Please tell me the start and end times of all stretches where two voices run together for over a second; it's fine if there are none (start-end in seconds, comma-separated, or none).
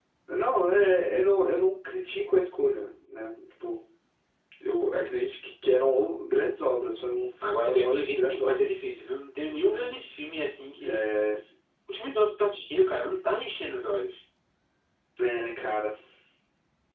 7.4-8.7